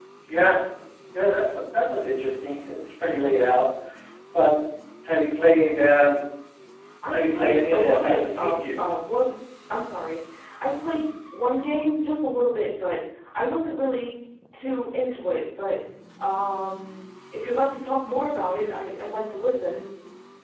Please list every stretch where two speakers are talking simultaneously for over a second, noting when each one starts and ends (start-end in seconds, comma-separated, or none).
7.1-9.0